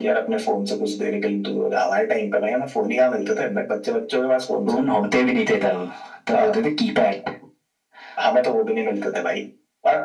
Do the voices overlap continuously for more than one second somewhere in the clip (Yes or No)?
No